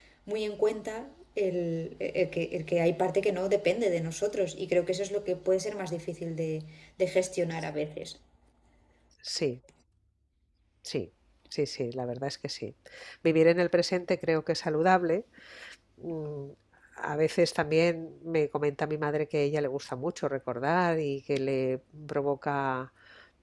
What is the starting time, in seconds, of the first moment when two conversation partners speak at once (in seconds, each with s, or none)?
none